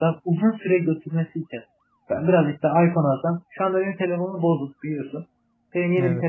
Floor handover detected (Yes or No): No